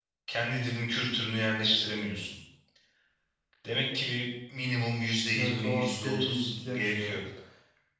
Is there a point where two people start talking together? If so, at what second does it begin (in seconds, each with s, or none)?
5.3 s